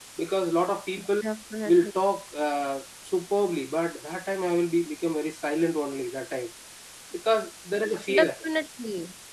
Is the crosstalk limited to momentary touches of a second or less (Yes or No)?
Yes